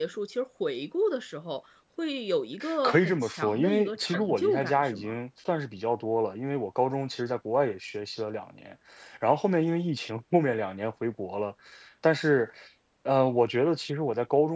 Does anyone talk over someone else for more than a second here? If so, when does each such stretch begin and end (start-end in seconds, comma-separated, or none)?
2.8-5.1